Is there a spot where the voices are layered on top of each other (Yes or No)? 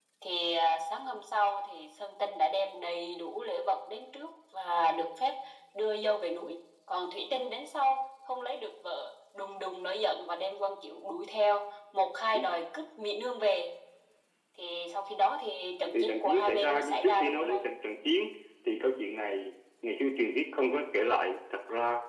Yes